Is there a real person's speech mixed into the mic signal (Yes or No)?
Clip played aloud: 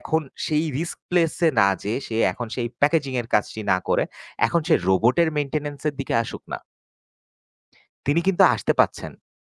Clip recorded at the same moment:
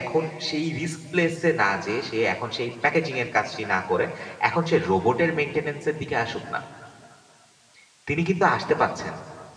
No